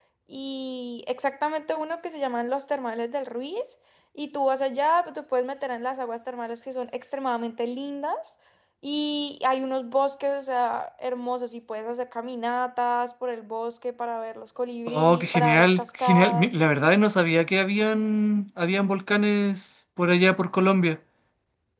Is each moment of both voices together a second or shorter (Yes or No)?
No